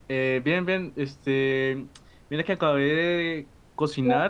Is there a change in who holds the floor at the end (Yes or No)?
No